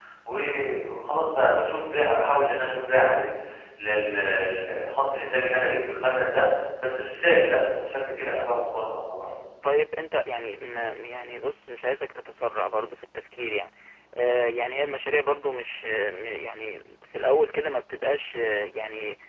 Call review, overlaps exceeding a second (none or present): none